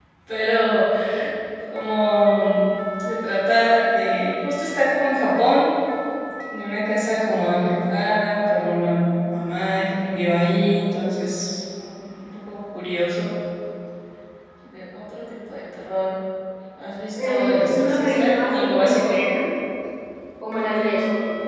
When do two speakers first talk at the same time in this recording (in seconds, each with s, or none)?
17.2 s